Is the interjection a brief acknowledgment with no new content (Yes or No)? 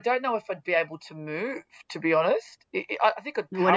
No